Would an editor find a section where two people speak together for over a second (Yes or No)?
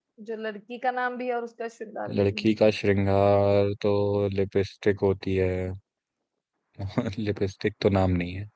No